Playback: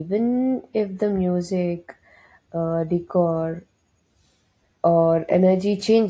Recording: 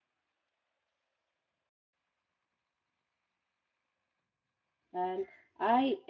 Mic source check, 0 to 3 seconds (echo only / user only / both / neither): neither